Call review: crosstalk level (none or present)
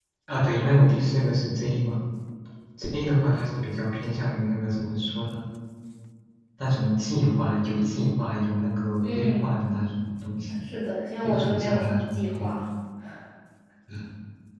present